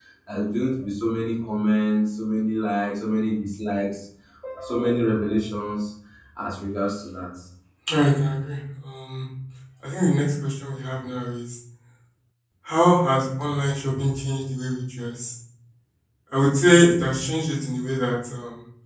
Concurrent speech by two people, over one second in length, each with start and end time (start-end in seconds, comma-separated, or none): none